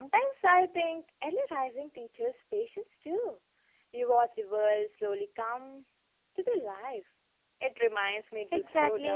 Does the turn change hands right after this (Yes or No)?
Yes